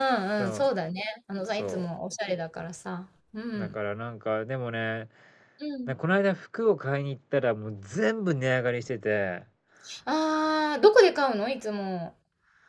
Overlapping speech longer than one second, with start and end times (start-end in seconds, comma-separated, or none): none